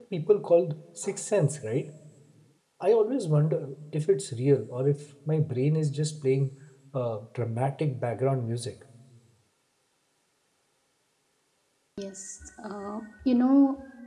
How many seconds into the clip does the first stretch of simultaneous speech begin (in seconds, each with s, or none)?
none